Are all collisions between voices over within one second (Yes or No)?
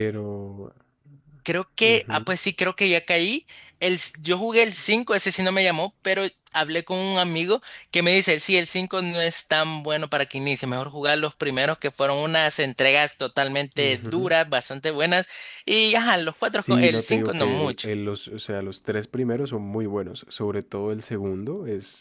No